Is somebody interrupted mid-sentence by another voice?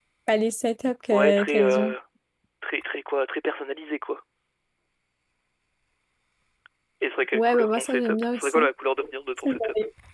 Yes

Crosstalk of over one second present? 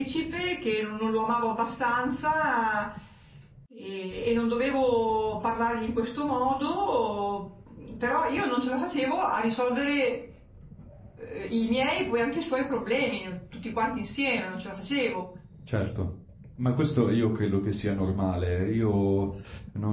No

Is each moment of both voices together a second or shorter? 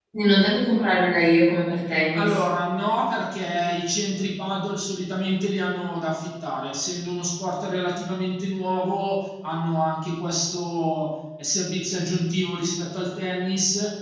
Yes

